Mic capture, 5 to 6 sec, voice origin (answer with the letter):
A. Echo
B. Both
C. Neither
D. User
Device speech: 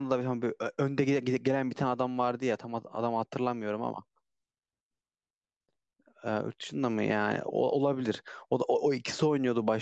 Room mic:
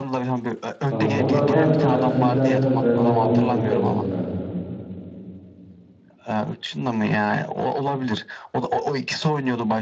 C